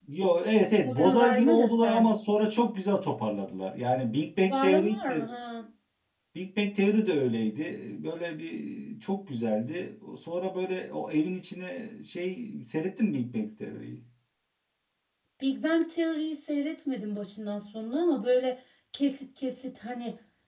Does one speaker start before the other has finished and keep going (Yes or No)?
Yes